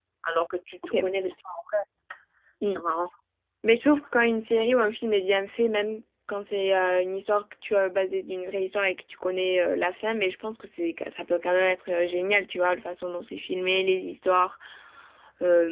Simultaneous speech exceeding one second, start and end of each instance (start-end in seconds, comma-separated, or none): none